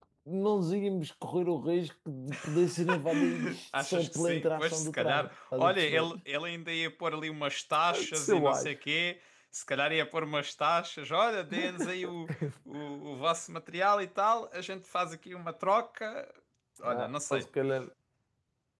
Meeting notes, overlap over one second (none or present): present